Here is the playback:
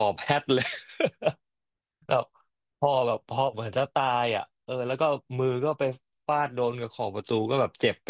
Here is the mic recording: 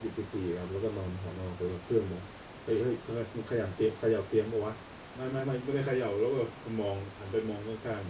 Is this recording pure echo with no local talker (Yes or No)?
No